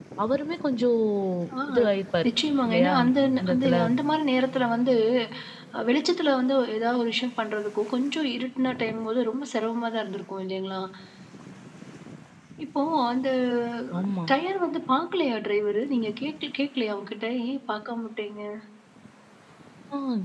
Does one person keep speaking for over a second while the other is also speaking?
No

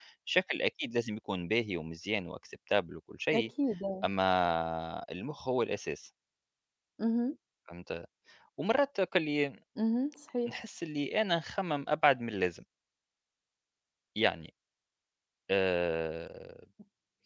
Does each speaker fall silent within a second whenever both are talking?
Yes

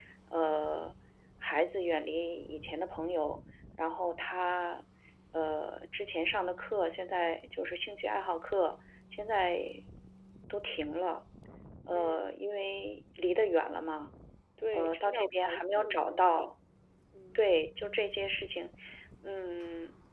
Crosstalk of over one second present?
Yes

